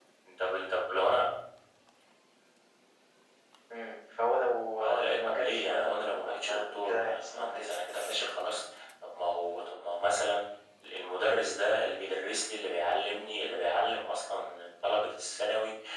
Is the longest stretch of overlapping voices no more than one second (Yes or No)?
No